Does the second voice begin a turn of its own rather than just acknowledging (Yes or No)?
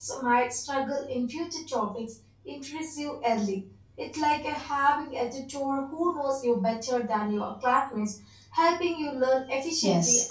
Yes